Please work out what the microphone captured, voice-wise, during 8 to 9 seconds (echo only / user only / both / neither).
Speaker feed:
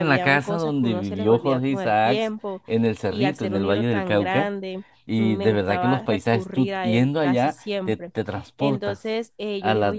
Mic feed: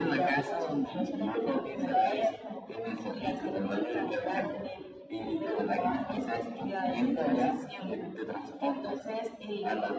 echo only